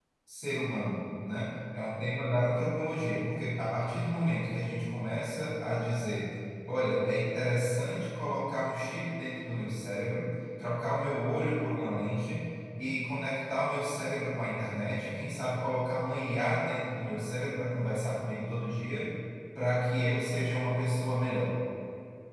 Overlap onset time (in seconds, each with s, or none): none